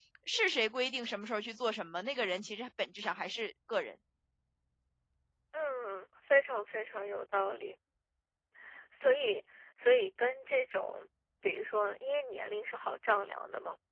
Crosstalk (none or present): none